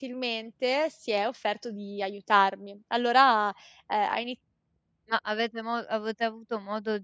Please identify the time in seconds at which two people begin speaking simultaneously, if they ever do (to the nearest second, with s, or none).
none